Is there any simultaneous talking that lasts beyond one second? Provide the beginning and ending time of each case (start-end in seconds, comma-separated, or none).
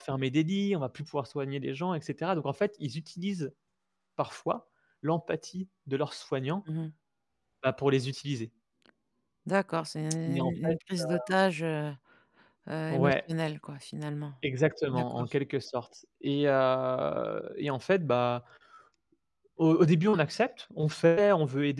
none